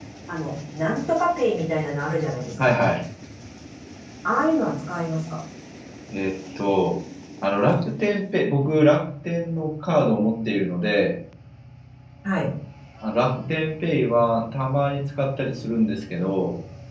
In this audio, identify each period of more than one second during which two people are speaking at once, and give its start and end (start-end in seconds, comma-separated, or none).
none